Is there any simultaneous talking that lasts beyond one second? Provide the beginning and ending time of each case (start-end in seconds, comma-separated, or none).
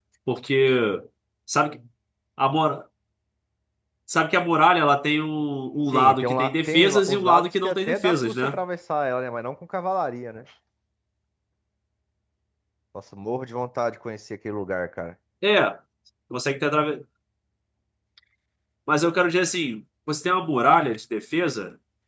5.9-8.6